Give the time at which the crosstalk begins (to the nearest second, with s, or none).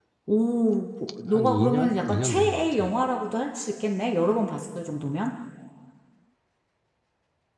1 s